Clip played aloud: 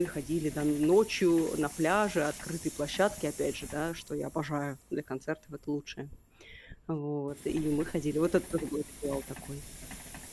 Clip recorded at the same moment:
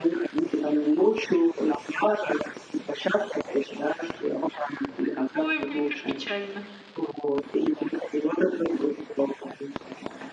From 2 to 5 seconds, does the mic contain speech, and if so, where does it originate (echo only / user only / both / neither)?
echo only